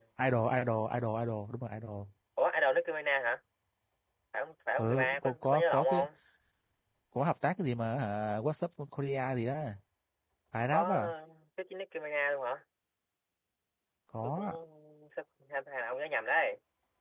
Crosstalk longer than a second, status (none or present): present